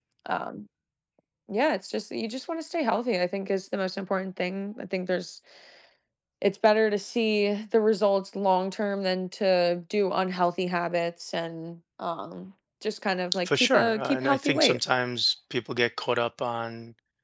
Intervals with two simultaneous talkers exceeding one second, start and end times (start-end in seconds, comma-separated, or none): 13.4-14.8